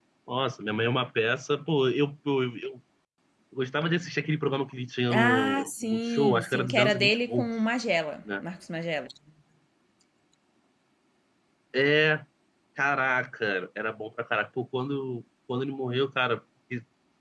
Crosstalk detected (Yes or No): Yes